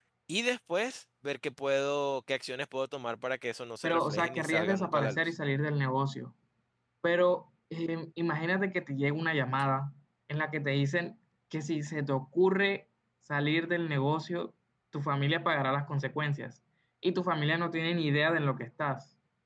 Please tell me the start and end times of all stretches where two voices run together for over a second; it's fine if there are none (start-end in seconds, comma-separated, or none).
3.8-5.2